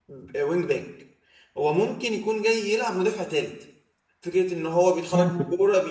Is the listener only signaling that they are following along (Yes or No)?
Yes